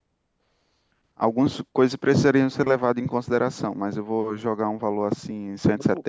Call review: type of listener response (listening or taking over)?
taking over